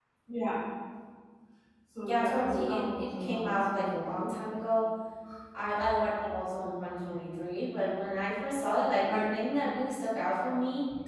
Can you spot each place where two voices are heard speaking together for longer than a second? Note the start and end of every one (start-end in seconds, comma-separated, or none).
2.0-3.9